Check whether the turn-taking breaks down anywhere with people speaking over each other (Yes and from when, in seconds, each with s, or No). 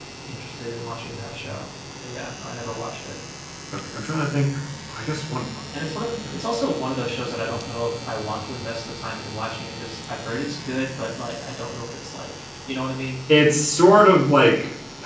No